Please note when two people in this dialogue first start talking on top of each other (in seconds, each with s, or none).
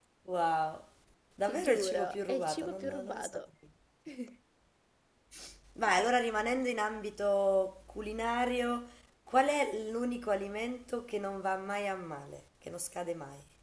1.4 s